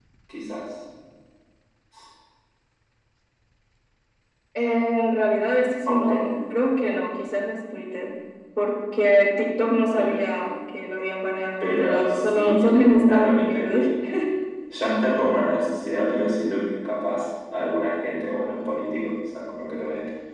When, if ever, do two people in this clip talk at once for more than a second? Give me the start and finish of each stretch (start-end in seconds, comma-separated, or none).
11.6-13.8